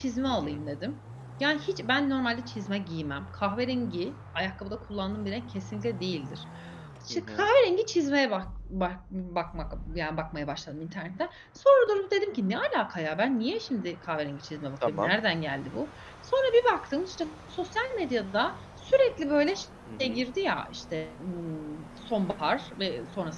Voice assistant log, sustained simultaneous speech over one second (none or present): none